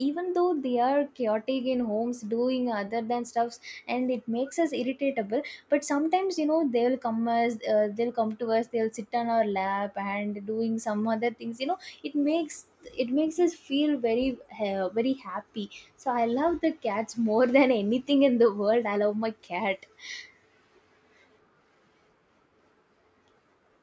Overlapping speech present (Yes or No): No